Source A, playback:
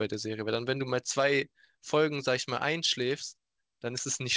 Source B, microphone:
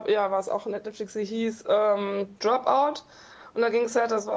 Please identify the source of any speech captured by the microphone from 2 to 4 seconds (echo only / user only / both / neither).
user only